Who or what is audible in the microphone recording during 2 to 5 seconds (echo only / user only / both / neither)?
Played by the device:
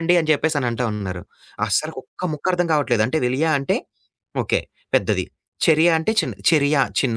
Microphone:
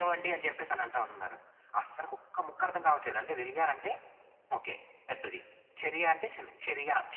echo only